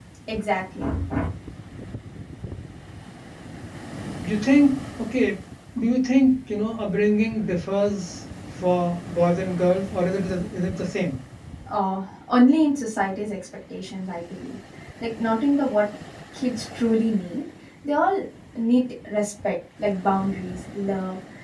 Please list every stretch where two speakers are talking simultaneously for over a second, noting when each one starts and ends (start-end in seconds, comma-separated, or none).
none